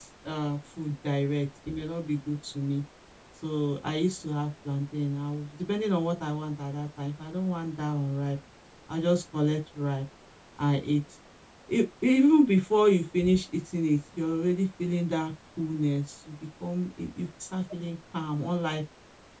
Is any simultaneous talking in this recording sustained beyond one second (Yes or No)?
No